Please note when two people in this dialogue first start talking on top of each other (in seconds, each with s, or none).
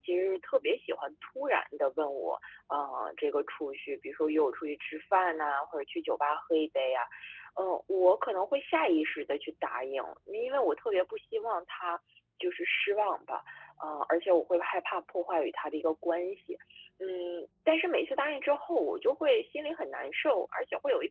none